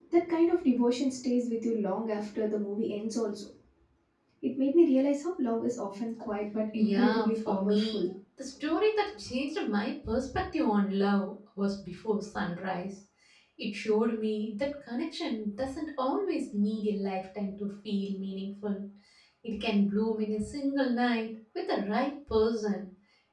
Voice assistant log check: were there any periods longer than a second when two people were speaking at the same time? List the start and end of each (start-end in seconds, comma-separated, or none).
6.8-8.0